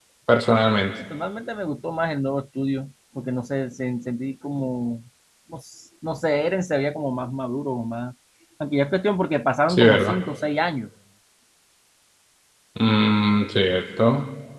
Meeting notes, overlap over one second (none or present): none